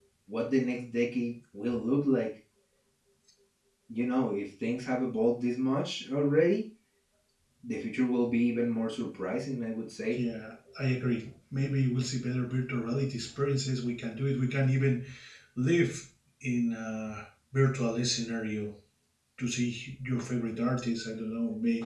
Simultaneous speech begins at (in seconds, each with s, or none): none